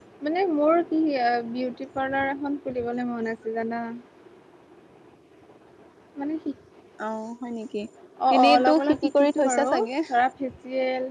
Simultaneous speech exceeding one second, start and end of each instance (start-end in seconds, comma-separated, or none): 8.4-9.7